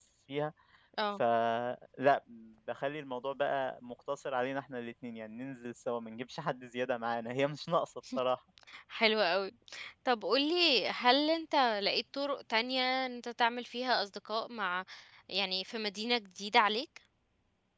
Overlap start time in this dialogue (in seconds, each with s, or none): none